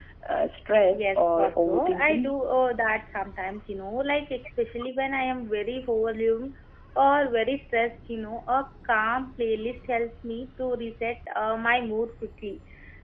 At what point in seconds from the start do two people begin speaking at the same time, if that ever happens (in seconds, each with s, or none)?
0.9 s